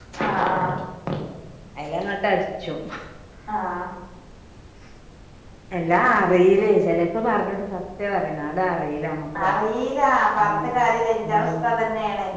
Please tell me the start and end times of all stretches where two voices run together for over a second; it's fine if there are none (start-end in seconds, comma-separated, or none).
none